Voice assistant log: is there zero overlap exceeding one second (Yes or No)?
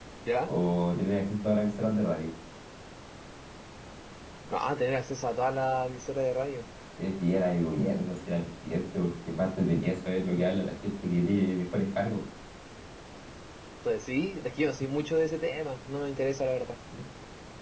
Yes